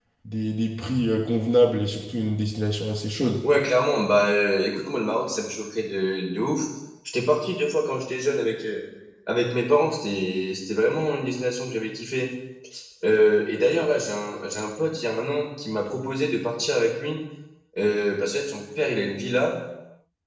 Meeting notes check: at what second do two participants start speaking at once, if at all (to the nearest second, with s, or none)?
none